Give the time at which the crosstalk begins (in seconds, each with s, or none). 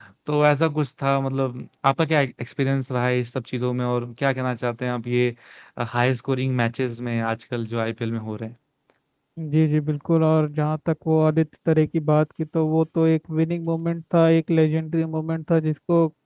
none